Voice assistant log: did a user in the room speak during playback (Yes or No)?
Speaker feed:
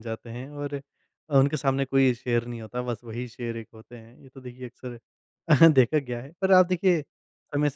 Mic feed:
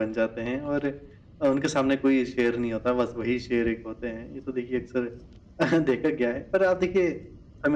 No